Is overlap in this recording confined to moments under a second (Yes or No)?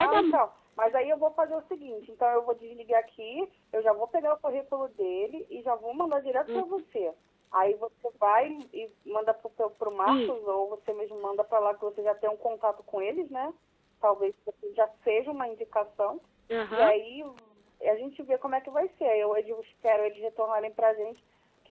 Yes